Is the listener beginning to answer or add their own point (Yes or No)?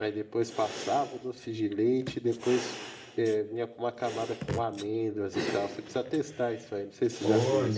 Yes